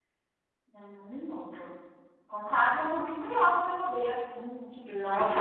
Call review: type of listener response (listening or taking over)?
taking over